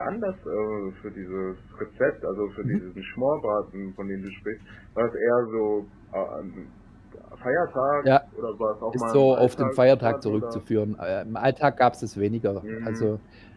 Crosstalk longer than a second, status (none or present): present